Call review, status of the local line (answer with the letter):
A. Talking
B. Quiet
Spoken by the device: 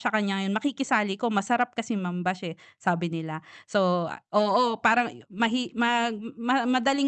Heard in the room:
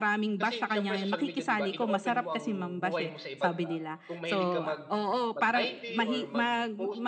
A